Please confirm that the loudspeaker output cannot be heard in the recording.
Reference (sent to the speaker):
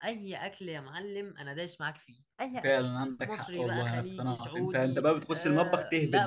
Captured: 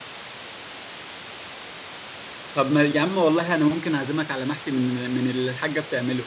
Yes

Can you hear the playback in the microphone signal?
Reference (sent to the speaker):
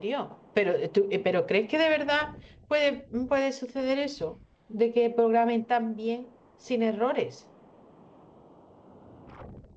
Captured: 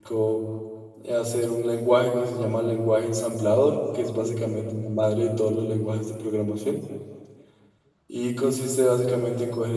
No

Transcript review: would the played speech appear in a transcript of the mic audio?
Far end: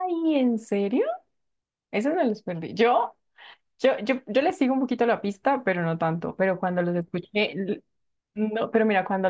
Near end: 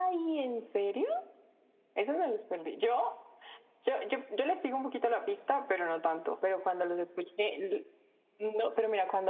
Yes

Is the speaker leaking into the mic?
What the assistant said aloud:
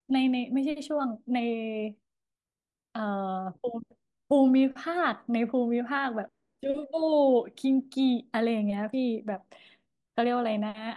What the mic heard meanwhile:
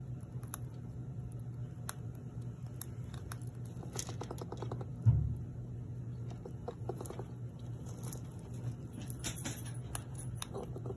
No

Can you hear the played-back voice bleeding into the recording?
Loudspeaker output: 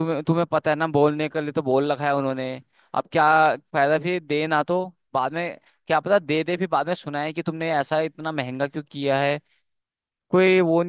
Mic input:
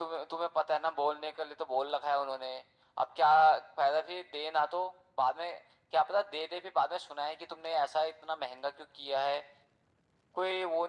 Yes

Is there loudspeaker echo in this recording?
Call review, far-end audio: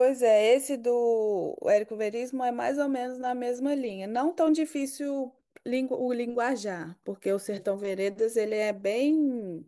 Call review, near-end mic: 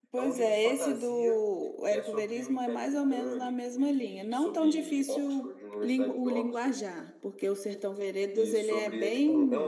Yes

